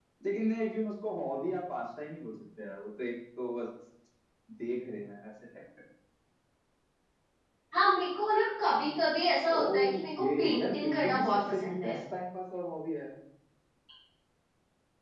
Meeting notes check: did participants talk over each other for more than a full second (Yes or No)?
Yes